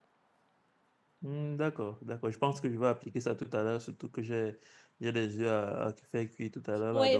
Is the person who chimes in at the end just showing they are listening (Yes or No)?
No